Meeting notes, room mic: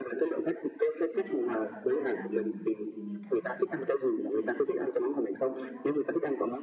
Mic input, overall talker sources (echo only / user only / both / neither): both